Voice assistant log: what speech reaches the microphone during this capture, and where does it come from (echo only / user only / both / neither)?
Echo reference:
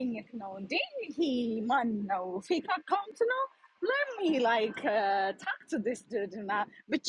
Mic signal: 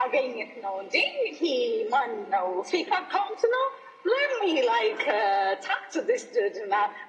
echo only